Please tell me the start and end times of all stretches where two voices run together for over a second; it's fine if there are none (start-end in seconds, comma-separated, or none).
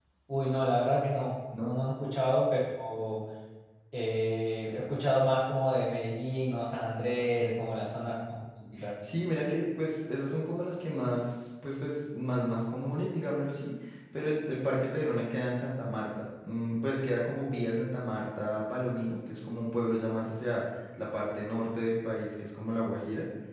none